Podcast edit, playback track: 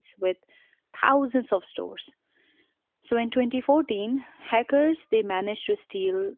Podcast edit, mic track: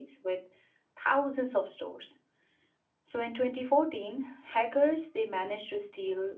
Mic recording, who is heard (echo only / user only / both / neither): echo only